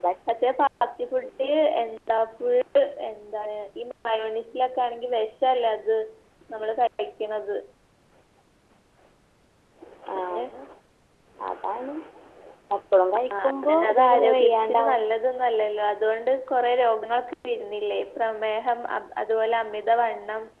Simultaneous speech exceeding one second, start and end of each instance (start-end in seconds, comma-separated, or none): 13.4-15.0